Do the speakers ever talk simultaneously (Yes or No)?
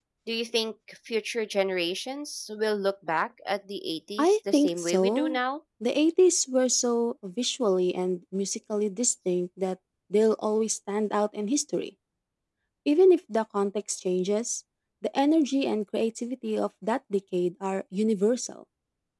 Yes